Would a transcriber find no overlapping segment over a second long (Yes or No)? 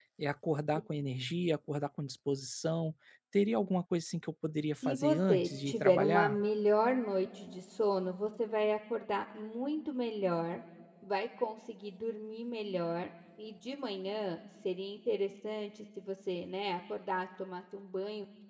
No